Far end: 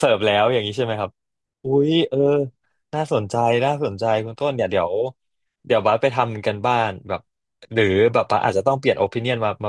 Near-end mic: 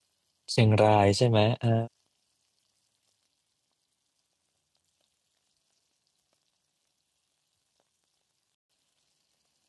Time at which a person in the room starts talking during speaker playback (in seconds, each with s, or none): 0.5 s